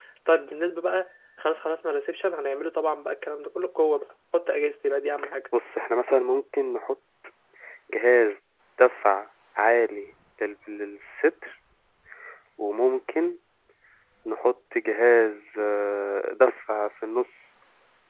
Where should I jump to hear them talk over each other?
none

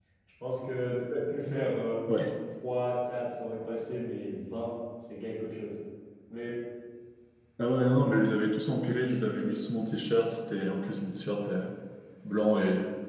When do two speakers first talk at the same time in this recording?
none

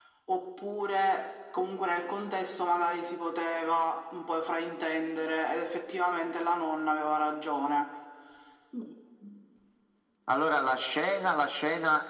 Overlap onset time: none

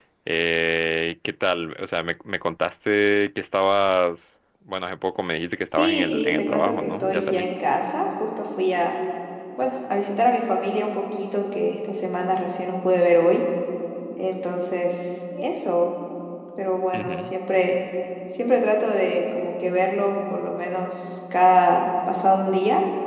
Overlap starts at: 5.7 s

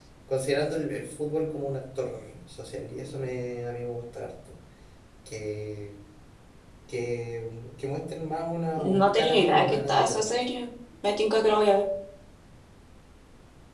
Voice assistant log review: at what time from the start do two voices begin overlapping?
8.8 s

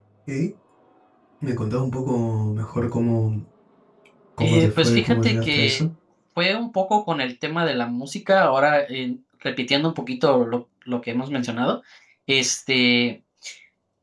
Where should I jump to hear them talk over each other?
4.4 s

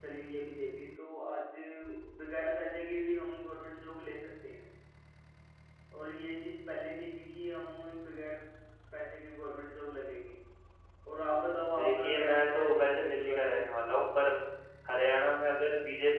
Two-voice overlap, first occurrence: 11.7 s

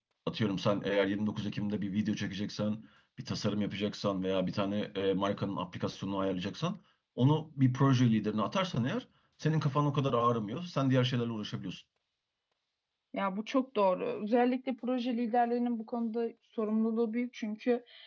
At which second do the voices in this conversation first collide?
none

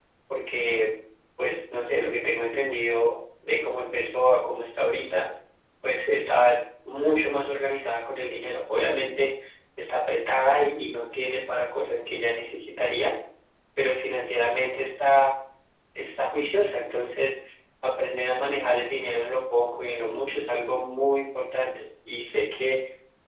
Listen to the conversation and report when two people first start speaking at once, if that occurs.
none

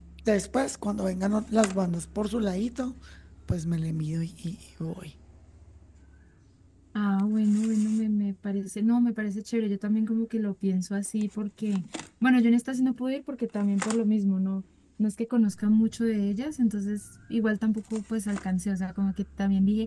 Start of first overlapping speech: none

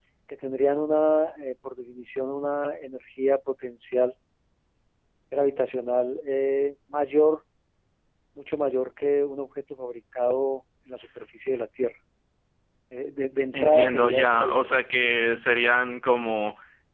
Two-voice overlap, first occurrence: 13.5 s

